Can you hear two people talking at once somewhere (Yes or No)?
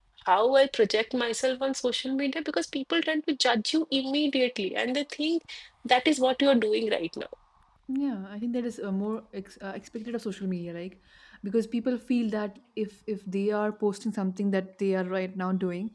No